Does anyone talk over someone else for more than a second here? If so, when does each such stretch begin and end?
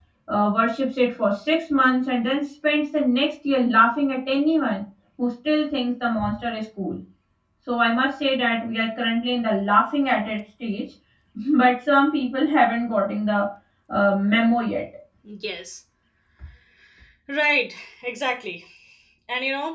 none

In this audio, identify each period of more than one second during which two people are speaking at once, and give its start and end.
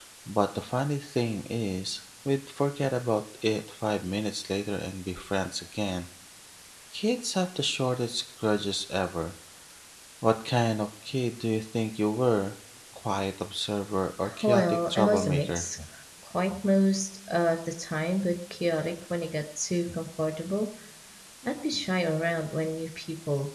14.4-15.7

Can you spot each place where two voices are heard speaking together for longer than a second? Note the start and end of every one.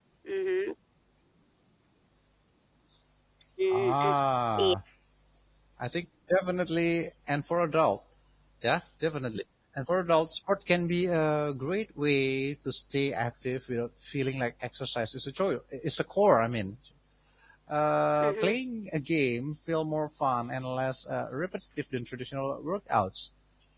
none

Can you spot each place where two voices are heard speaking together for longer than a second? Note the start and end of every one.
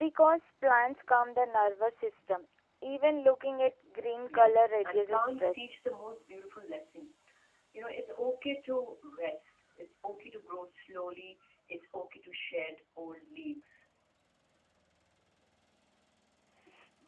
4.3-5.7

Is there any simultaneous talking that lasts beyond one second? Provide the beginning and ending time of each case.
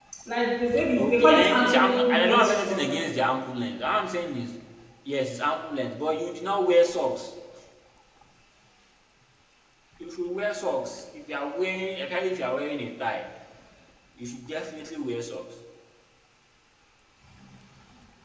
1.0-3.0

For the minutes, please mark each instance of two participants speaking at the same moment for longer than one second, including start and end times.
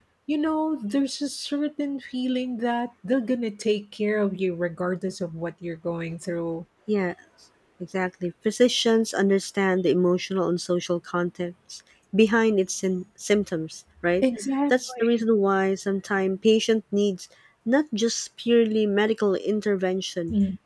none

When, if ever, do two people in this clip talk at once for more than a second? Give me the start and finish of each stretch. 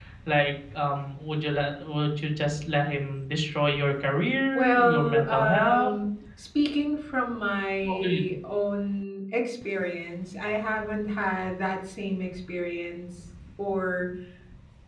4.5-5.9

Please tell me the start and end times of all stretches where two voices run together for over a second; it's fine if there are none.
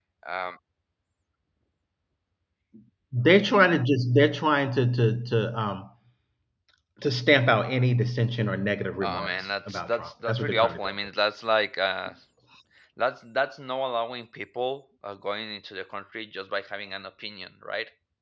9.0-10.9

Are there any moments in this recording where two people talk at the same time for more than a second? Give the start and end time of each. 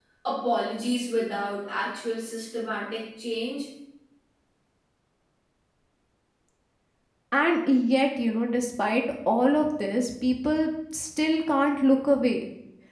none

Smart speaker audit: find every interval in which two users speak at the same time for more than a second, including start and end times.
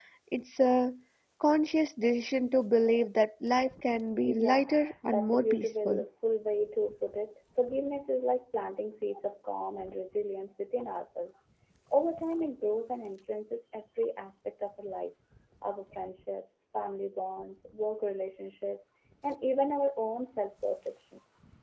4.2-6.0

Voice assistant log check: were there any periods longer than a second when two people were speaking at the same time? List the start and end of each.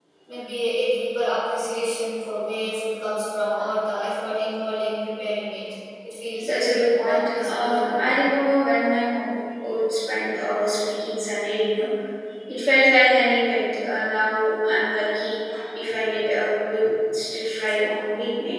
6.4-8.2

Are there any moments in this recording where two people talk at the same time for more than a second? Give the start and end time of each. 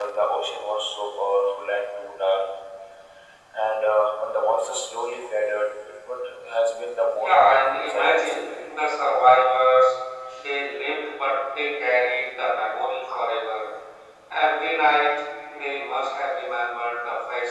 7.2-8.6

